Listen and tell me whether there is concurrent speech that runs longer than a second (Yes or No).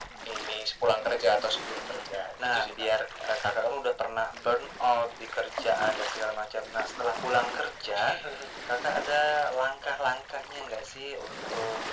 No